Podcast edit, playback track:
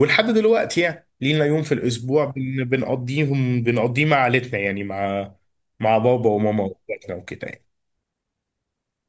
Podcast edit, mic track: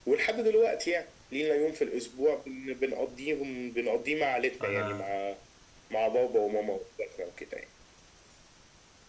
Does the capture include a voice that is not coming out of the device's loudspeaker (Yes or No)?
Yes